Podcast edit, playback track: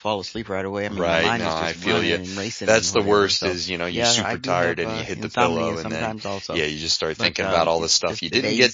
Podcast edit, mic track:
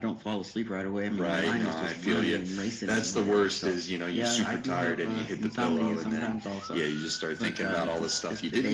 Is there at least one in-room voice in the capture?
No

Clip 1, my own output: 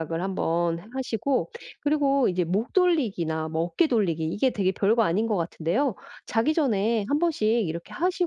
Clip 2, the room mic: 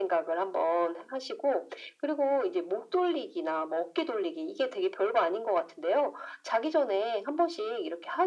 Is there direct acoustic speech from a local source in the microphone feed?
No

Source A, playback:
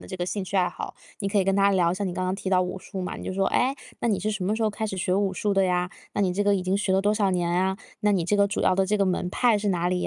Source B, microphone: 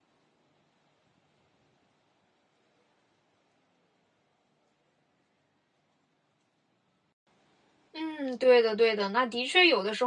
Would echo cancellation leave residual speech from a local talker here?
Yes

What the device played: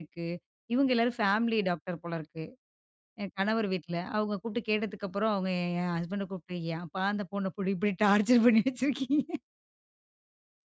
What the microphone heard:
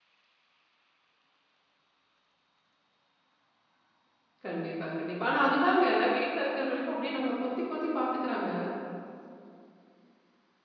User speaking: Yes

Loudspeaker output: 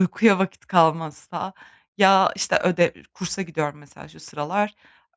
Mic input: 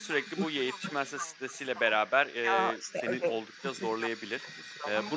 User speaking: Yes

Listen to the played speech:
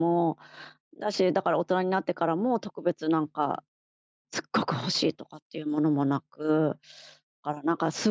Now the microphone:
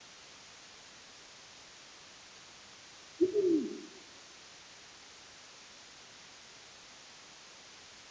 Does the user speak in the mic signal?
Yes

